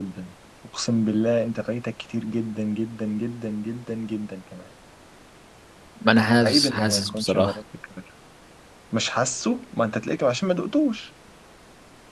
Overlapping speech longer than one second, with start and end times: 6.2-7.5

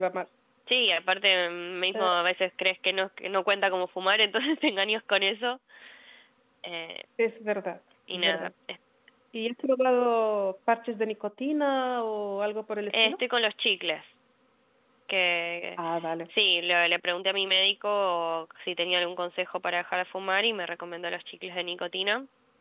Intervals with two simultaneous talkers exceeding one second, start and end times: none

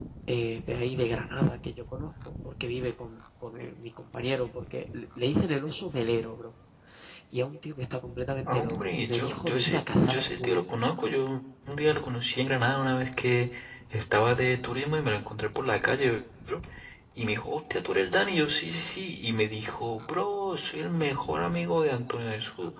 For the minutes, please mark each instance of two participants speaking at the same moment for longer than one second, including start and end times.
8.4-11.1

